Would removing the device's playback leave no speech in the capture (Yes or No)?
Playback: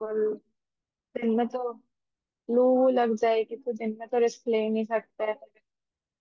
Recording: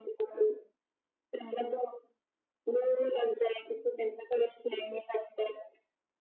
Yes